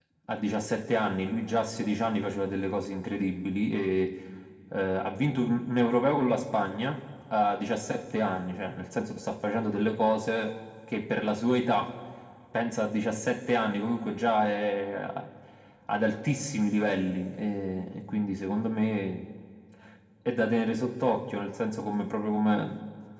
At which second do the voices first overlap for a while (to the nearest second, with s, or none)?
none